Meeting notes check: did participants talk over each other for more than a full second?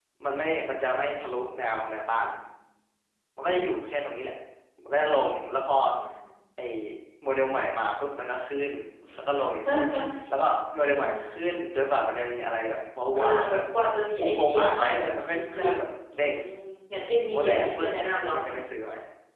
Yes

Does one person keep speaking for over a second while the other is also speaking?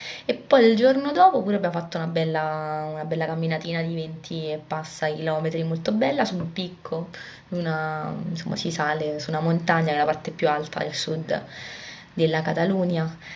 No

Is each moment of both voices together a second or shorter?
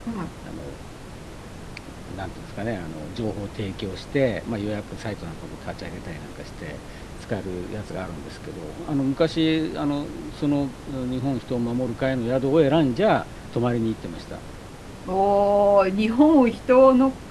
Yes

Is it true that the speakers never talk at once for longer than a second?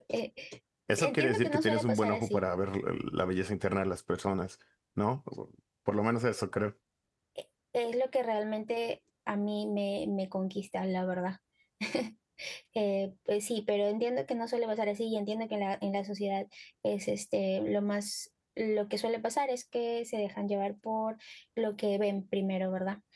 No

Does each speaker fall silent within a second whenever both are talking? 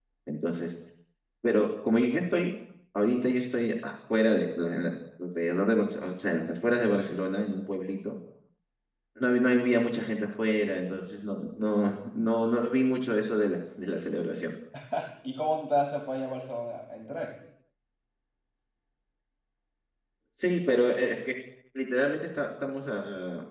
Yes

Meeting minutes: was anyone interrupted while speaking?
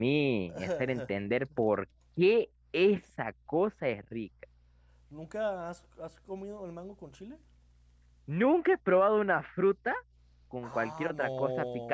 Yes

